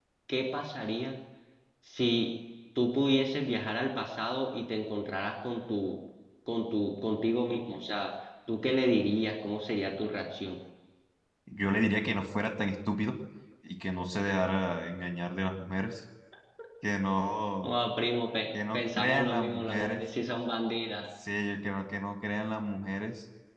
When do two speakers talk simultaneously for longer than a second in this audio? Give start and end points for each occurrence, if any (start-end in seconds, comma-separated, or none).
18.7-20.0